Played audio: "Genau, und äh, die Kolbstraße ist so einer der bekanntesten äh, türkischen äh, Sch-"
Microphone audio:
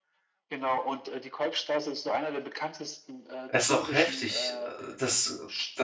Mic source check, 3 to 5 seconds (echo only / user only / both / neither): both